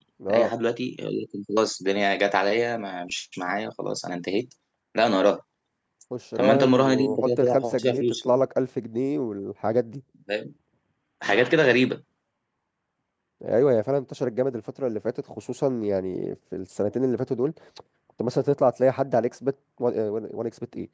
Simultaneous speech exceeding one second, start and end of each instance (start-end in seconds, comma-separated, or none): 6.4-8.4